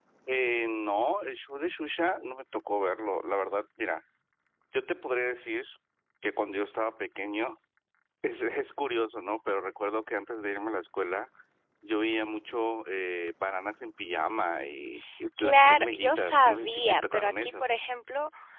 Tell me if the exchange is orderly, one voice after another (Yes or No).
No